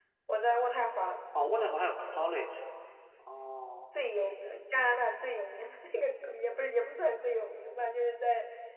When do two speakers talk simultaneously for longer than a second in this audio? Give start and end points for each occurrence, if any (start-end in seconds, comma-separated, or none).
none